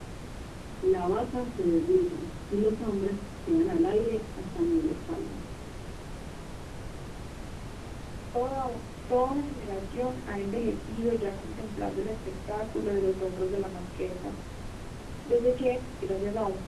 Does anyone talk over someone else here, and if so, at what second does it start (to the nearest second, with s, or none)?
none